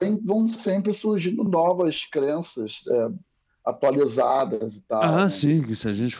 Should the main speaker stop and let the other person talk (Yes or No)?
Yes